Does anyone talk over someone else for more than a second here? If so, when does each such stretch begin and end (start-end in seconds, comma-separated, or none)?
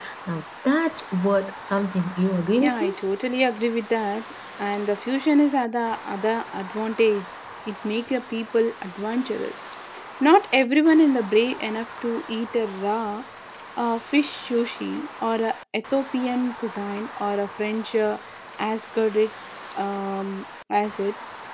none